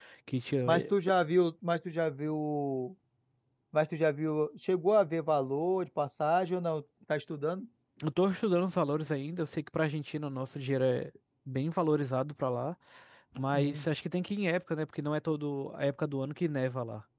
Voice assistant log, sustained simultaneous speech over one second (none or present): none